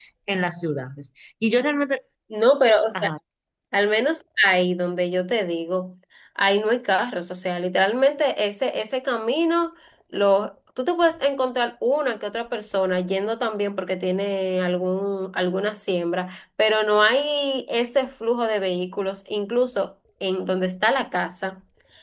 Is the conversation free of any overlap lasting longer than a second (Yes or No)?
Yes